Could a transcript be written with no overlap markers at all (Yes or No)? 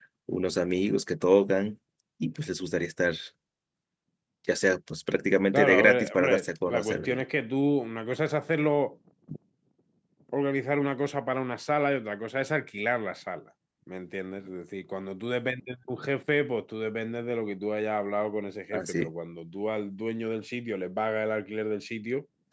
No